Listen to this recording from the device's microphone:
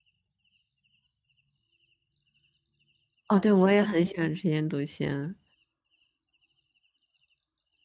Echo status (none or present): none